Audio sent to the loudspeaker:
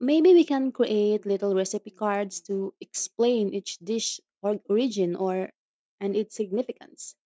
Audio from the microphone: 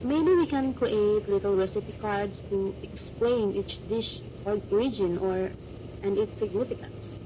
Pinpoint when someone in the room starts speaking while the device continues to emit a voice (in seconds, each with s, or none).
none